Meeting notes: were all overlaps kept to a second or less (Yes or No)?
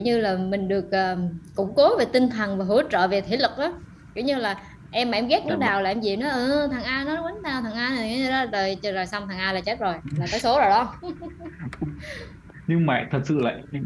Yes